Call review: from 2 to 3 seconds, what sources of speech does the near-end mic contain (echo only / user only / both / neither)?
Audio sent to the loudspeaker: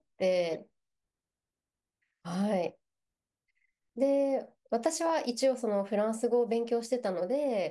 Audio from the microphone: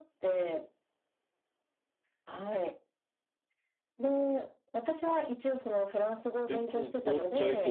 echo only